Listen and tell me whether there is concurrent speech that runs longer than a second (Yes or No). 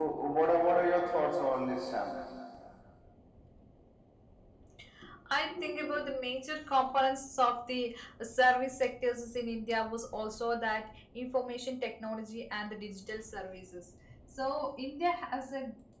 No